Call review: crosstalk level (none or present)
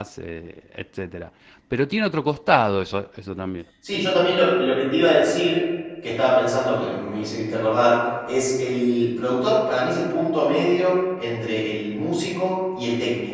none